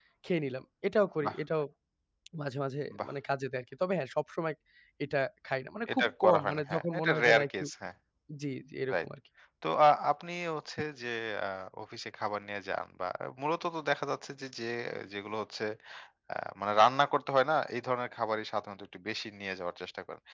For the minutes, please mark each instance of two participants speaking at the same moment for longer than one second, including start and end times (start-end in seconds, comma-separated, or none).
5.9-7.6